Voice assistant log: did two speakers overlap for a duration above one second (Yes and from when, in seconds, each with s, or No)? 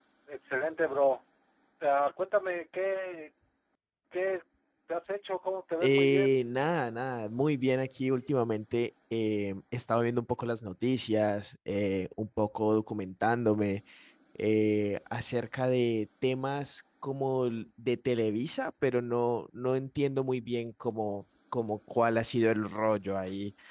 No